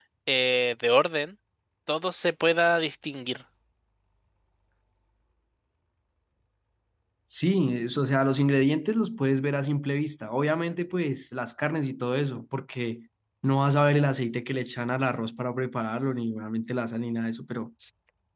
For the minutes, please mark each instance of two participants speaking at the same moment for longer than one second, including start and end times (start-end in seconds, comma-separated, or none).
none